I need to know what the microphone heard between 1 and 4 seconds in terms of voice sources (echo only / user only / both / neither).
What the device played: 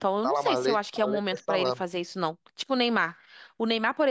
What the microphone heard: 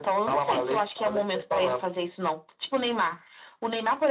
echo only